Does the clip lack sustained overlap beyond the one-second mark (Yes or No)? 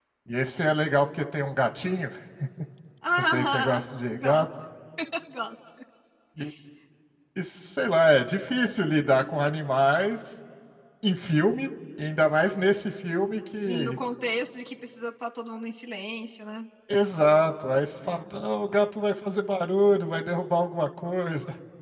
No